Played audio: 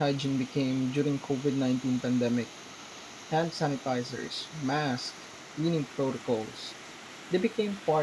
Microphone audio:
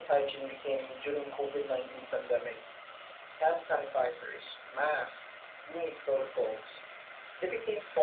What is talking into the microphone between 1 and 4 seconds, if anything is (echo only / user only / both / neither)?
echo only